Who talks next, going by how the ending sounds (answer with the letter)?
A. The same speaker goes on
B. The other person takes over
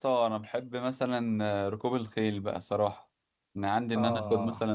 A